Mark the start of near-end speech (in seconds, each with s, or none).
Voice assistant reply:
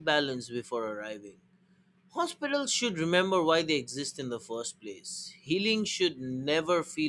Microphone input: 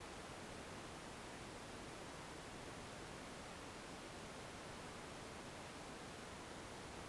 none